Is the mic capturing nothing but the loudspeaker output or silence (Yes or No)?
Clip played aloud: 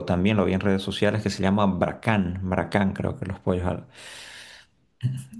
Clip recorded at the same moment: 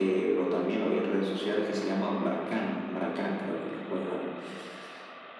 Yes